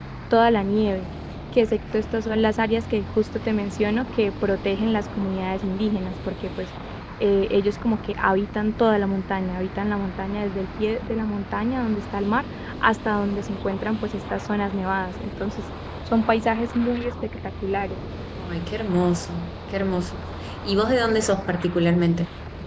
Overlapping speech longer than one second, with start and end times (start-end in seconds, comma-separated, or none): none